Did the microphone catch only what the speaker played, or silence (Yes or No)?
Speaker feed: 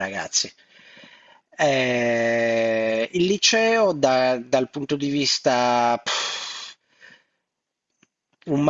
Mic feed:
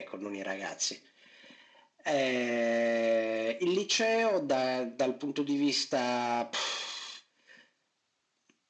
Yes